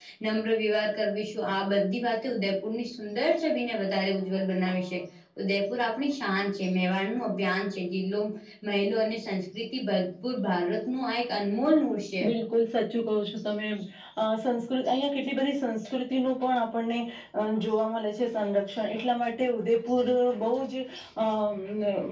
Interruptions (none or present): none